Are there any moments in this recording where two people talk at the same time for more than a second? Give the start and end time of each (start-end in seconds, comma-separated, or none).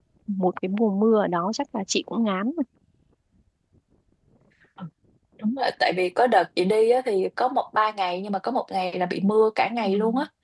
none